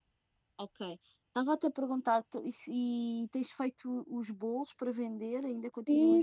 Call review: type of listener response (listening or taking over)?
taking over